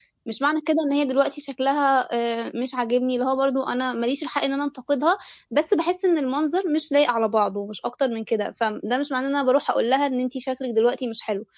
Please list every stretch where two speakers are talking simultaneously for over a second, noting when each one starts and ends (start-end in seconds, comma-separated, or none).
none